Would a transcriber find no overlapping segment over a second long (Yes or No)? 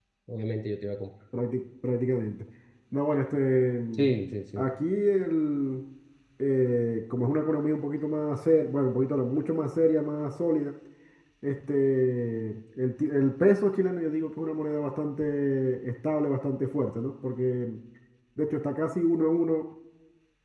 Yes